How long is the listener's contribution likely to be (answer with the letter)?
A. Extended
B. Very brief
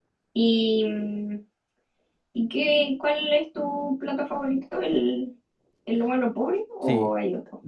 A